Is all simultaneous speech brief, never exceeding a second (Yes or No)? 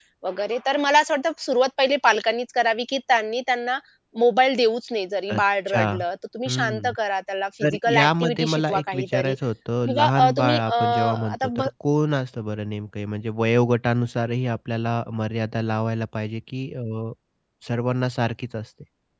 No